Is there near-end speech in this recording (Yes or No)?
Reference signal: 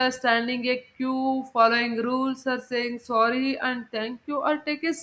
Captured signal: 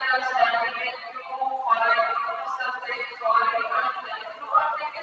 No